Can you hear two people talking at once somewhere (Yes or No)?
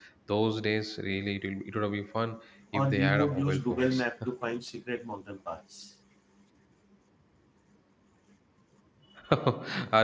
Yes